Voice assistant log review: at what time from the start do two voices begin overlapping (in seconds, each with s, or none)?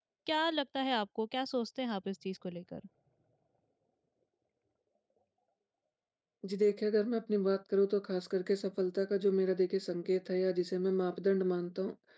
none